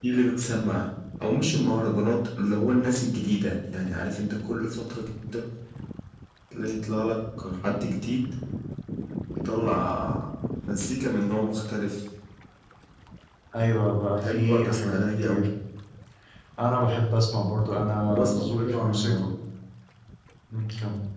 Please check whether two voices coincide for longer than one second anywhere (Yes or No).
Yes